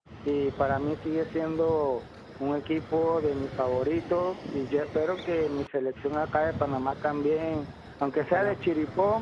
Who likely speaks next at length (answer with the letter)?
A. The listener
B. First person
B